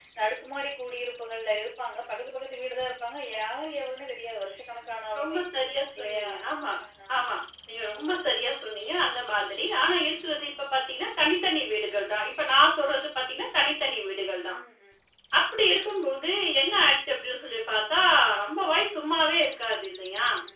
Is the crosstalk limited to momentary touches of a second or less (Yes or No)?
Yes